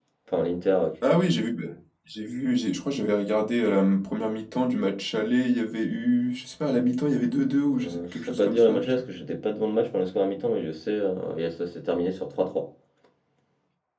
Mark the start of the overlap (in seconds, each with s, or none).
7.7 s